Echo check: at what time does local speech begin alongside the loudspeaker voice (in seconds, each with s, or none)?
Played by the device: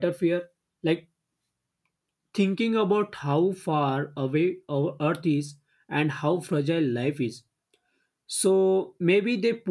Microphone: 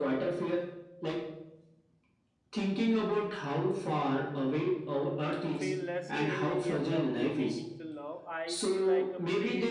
5.5 s